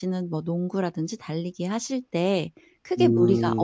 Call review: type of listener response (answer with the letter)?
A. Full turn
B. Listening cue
B